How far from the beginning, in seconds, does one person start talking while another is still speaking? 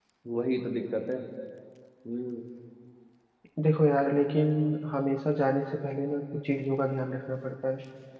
none

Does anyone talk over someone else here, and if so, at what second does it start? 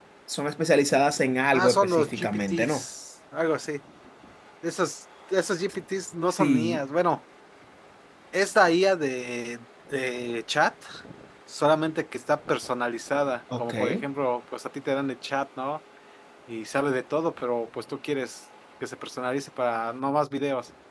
1.5 s

